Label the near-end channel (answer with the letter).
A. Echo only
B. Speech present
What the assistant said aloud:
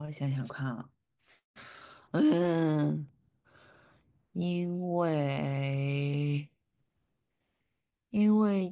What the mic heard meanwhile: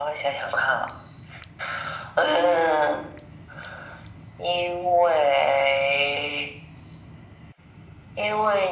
A